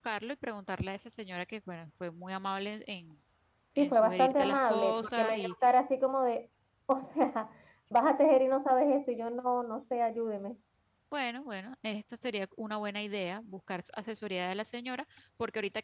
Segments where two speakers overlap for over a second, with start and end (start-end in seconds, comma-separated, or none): 3.8-5.4